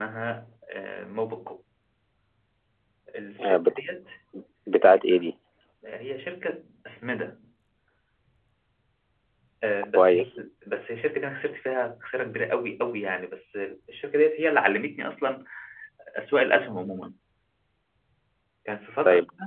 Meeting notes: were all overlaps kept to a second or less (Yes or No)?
Yes